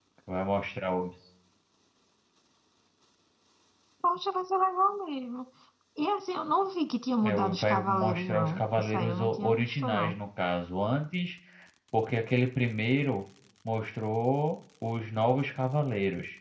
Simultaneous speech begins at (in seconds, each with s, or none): 7.2 s